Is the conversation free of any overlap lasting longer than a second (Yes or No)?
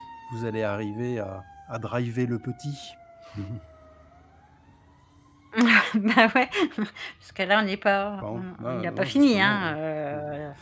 No